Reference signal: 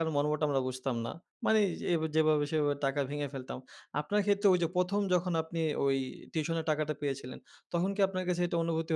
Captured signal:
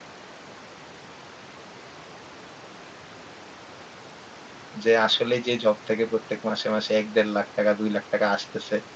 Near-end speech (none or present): present